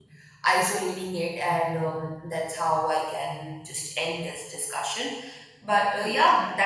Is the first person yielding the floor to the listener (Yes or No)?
No